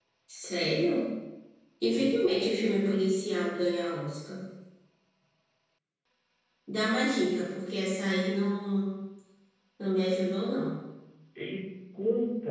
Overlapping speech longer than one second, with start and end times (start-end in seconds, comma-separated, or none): none